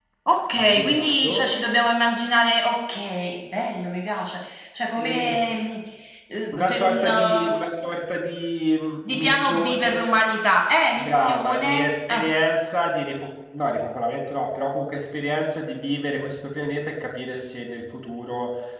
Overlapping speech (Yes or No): Yes